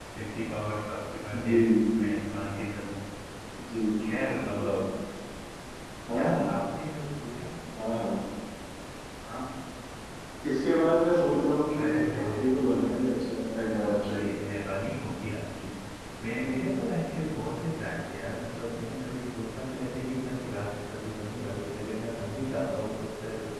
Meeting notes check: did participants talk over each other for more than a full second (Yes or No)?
Yes